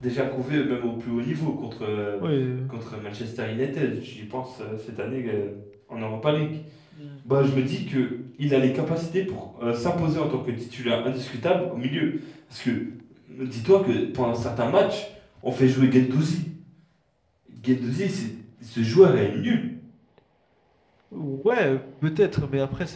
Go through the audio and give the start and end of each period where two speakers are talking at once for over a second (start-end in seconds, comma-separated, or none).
none